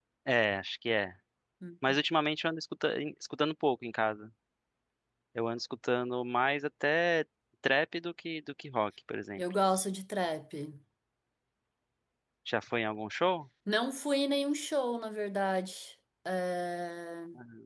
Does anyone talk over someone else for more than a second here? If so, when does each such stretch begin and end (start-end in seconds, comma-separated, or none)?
none